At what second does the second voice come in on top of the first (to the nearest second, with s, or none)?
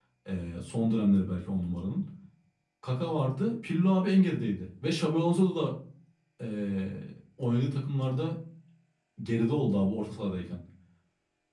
none